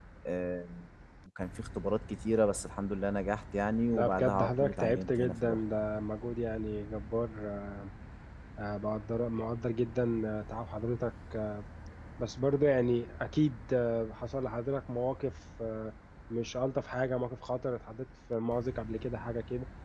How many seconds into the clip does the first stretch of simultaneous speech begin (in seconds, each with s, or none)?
3.9 s